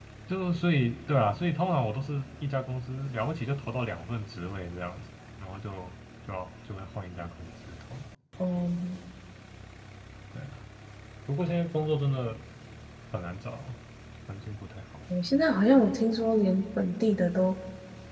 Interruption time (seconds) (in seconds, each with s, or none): none